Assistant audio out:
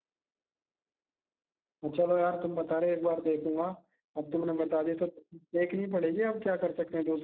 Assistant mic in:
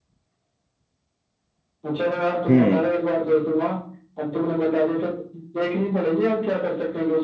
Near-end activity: present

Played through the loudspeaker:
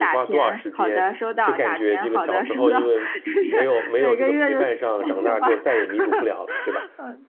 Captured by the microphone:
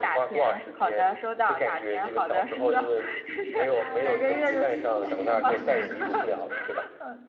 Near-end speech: present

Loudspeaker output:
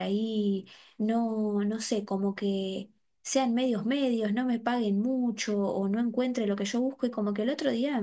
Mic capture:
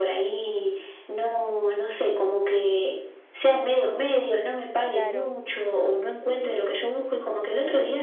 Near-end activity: present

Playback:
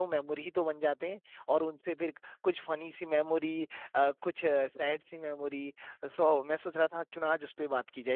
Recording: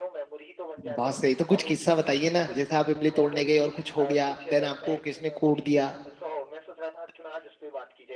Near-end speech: present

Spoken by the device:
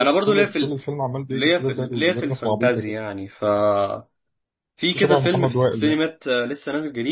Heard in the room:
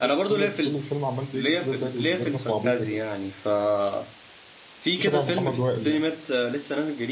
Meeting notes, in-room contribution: none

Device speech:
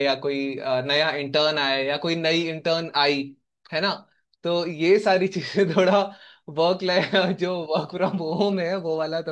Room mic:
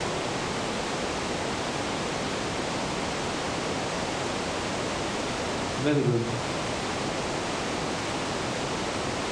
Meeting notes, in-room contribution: present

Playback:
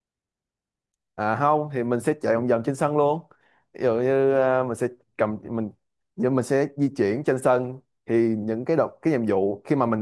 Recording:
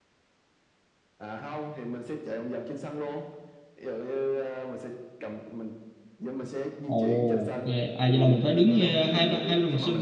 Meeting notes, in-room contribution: present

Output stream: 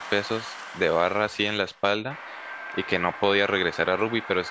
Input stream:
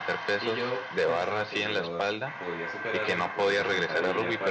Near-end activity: present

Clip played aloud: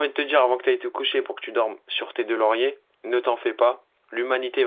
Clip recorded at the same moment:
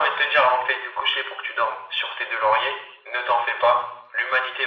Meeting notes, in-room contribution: none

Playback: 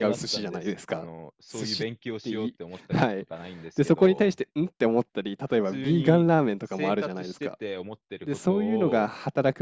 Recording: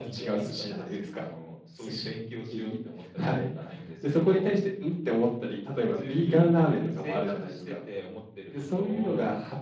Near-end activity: none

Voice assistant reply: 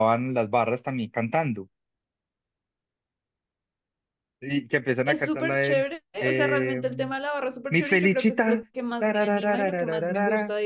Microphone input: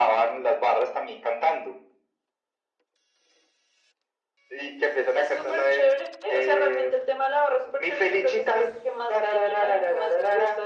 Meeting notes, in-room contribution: none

